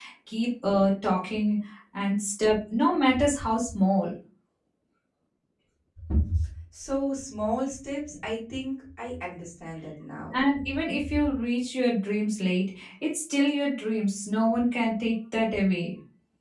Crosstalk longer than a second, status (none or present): none